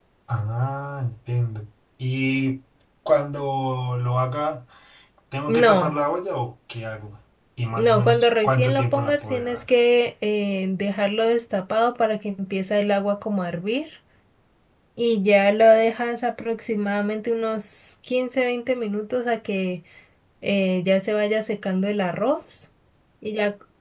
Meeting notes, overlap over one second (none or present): present